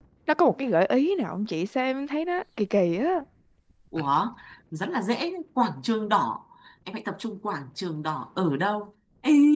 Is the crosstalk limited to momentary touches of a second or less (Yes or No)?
Yes